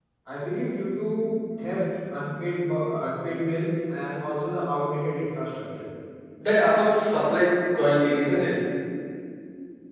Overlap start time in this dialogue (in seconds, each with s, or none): none